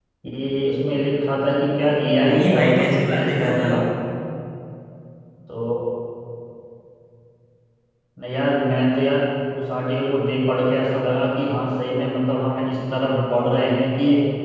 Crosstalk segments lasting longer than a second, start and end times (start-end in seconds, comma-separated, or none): 2.2-3.8